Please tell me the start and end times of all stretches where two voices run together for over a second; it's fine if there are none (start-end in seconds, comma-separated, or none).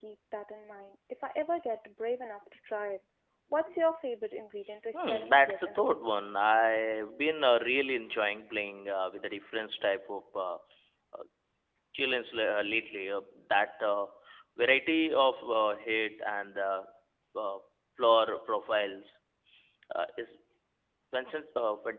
4.9-6.2